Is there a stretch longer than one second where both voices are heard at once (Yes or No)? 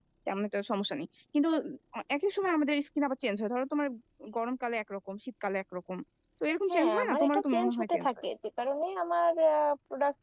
Yes